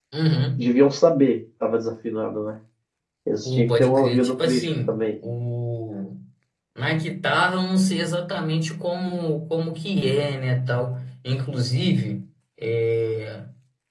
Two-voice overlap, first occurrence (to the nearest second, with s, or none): 3 s